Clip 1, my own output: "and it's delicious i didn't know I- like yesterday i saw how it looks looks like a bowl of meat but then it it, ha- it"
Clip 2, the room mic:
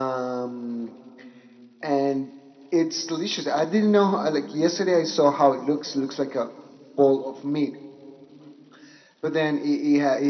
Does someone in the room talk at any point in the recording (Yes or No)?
No